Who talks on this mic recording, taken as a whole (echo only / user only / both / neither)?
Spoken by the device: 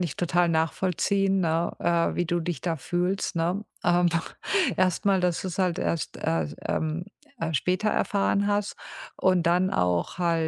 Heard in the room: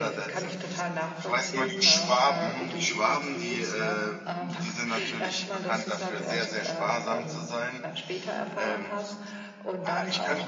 both